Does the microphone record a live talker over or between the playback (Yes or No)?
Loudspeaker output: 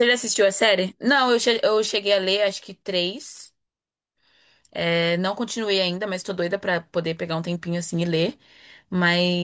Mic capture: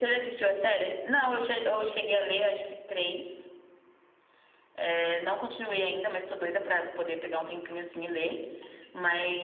No